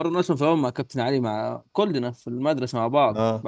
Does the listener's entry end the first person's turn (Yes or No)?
No